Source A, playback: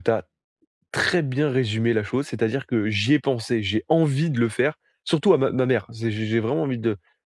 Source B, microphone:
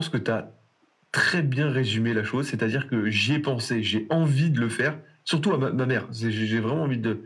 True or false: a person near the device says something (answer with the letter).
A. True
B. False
B